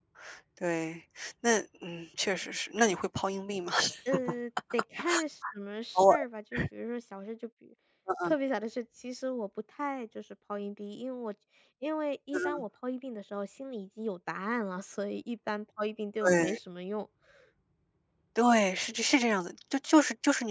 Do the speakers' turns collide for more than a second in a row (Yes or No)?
No